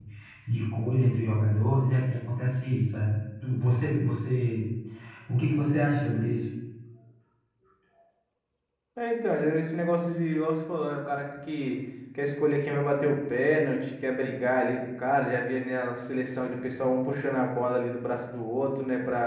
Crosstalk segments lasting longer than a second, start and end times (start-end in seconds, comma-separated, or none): none